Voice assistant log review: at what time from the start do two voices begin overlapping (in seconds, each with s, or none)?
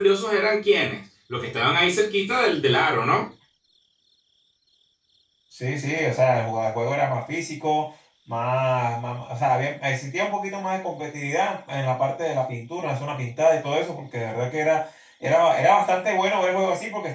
none